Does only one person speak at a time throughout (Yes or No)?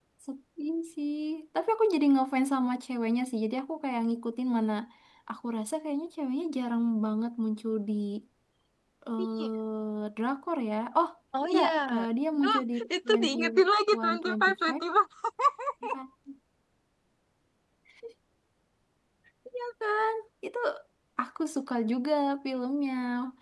No